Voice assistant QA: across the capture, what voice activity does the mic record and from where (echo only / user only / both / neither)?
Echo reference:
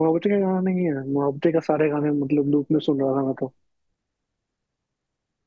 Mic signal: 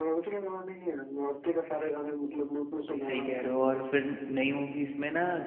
both